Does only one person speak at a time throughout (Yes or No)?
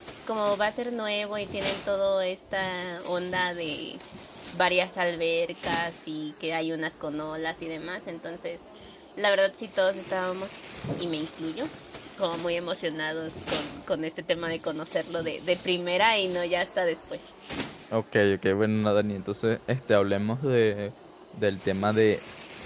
Yes